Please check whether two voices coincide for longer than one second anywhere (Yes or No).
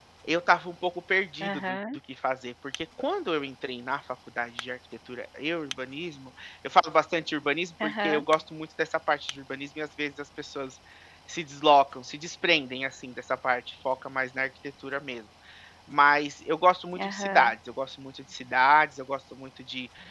No